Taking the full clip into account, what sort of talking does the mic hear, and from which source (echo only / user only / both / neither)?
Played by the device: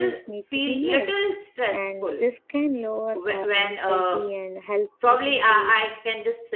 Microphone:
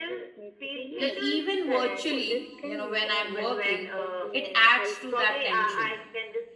both